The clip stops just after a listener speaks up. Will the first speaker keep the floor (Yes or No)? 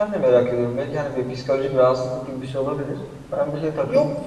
Yes